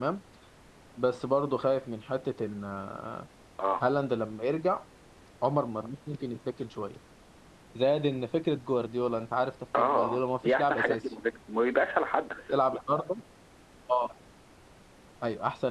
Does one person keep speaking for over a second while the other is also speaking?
Yes, from 9.7 s

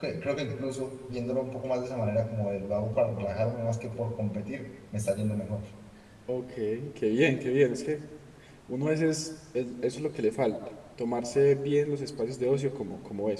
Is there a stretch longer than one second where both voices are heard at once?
No

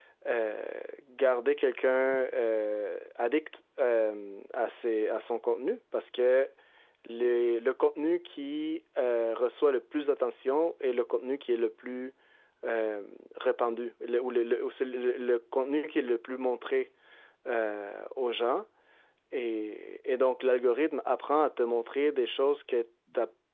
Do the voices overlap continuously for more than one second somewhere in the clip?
No

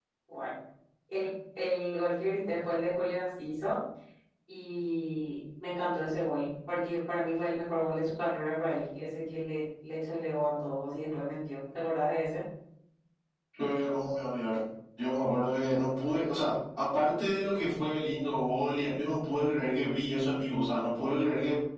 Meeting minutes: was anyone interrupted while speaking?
No

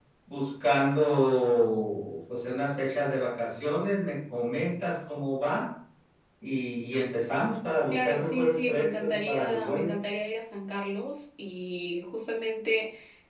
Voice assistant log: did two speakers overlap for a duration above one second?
Yes, from 7.9 s

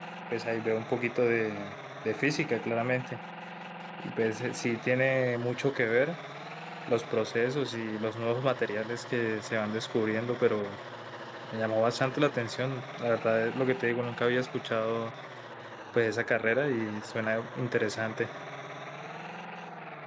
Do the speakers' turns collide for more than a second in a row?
No

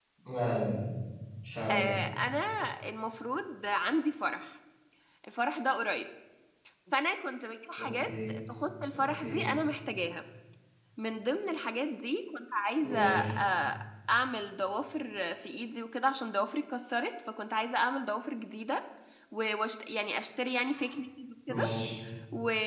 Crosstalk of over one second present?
No

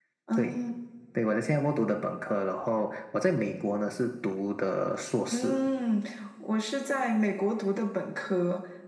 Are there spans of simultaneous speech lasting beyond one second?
No

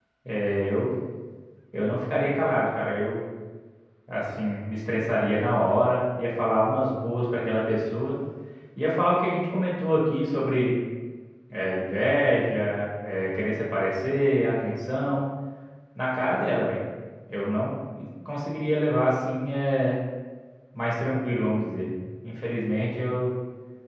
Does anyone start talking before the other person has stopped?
No

